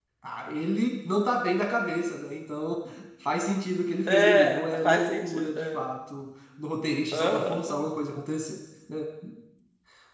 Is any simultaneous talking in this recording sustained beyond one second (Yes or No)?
Yes